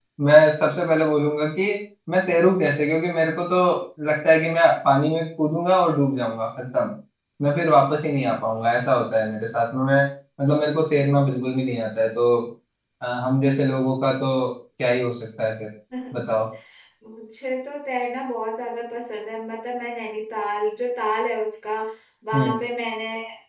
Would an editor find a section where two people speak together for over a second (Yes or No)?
No